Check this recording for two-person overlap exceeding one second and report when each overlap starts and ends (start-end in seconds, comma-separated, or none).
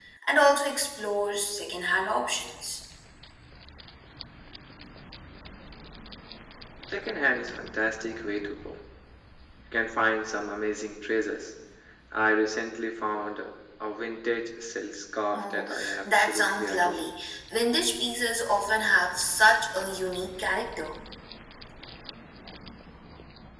15.3-17.0